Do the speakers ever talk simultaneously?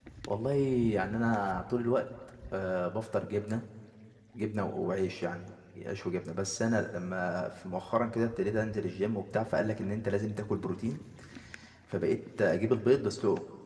No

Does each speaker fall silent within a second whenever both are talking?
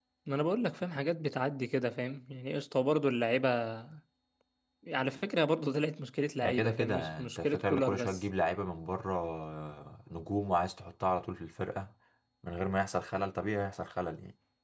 No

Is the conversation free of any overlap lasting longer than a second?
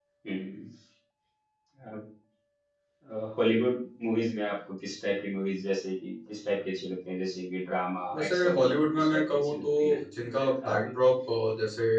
No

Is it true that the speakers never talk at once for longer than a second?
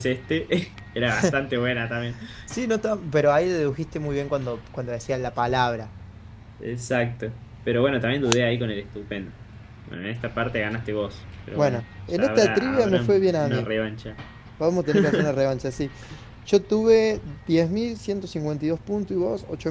No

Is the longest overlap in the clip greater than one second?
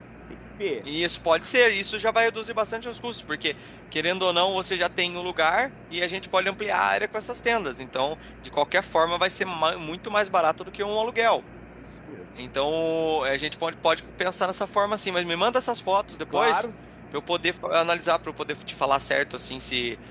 No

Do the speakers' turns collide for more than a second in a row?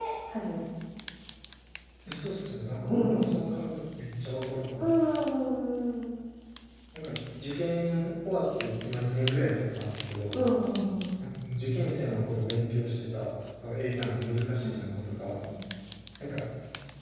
No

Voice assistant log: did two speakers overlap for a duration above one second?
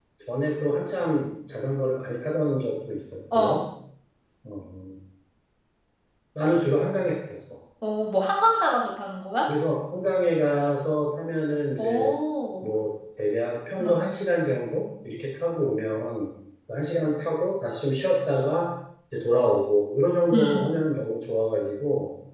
No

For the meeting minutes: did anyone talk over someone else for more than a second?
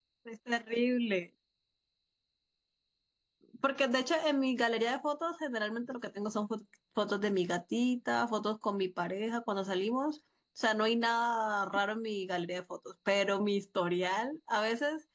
No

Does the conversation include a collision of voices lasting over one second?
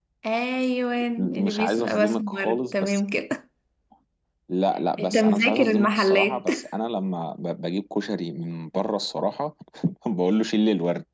Yes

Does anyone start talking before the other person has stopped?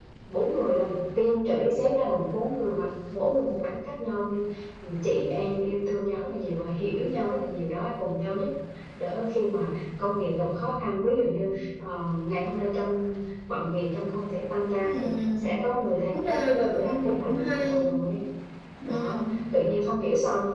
Yes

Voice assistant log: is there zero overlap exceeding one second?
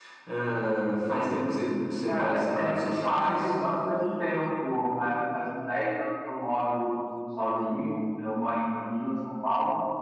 No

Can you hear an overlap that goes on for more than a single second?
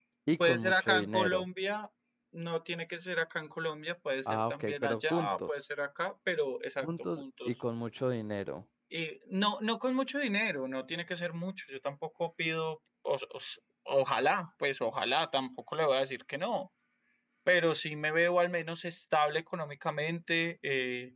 Yes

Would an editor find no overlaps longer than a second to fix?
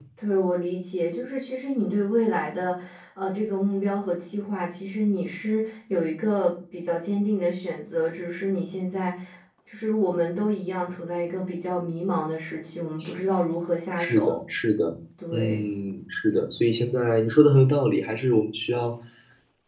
Yes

